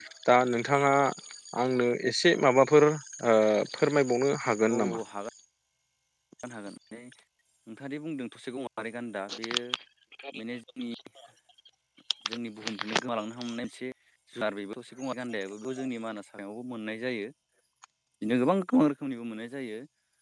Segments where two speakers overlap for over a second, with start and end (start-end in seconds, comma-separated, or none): none